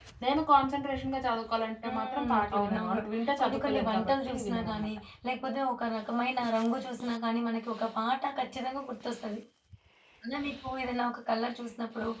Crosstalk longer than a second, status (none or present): present